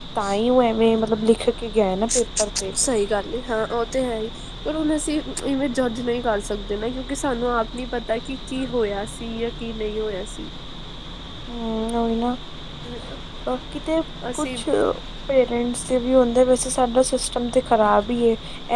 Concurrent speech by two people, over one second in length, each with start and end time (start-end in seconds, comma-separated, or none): none